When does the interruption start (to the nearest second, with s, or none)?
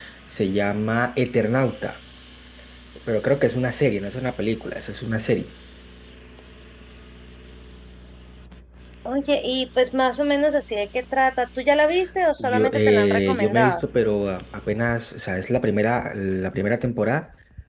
12 s